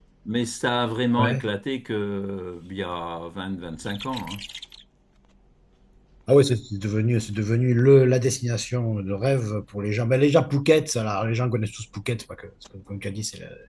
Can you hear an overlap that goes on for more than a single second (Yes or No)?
No